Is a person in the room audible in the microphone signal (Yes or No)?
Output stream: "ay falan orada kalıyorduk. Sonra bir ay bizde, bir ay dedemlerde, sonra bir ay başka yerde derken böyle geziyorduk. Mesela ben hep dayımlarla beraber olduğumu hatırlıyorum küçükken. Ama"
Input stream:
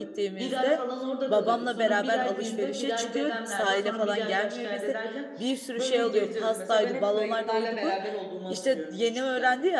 Yes